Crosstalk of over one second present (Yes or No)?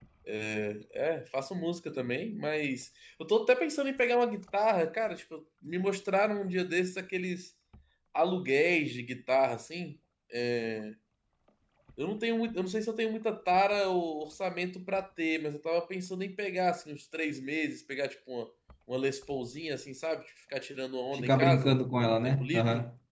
Yes